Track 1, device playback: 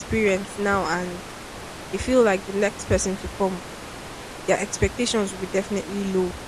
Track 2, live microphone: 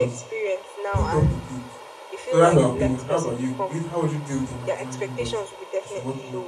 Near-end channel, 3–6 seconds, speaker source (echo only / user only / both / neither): both